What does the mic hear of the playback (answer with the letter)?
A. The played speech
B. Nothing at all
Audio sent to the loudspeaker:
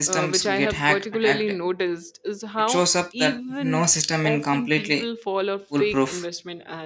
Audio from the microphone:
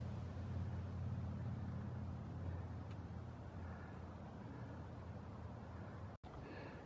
B